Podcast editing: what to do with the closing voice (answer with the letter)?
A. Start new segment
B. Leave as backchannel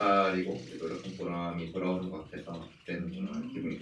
A